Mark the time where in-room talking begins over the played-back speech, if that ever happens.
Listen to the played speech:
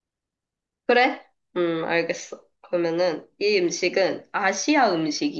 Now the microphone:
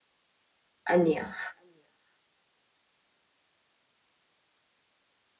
0.8 s

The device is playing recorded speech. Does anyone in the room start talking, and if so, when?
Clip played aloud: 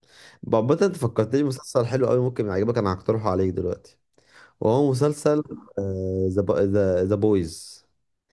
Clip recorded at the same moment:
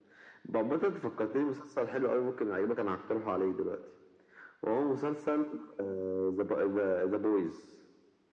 none

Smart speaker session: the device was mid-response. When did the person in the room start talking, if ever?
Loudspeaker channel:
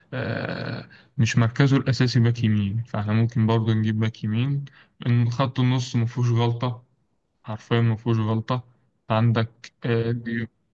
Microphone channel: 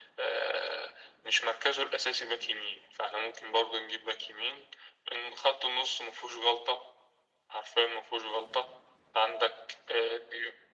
none

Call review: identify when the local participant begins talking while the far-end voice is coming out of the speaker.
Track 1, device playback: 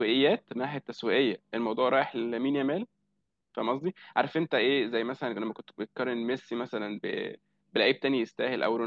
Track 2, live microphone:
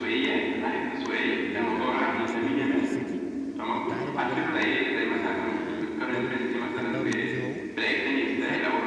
1.4 s

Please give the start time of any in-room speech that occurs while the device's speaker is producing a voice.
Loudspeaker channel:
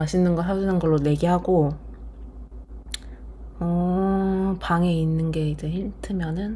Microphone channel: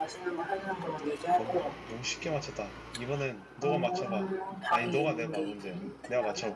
1.3 s

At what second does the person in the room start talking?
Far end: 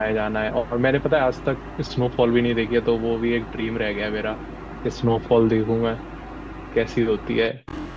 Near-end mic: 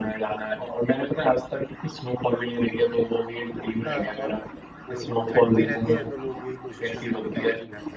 3.9 s

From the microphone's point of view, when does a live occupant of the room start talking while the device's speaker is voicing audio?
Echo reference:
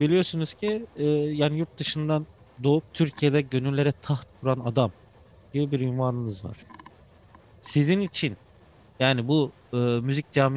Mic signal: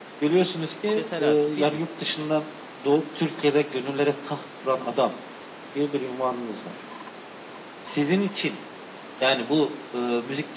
0.9 s

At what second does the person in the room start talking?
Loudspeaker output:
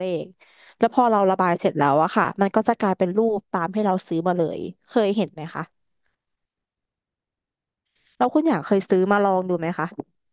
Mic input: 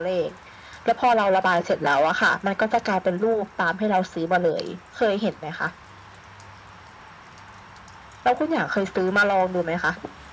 none

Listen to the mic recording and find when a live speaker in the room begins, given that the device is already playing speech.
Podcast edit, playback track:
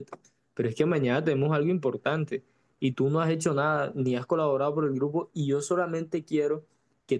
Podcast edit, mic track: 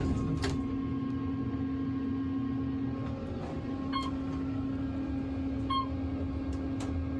none

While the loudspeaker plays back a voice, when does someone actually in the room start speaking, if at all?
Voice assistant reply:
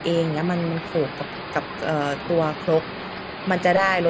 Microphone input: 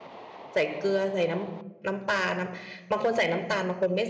0.5 s

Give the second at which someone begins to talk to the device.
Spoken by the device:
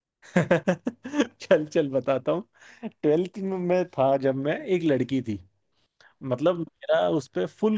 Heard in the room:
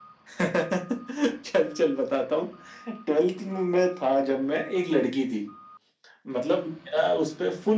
none

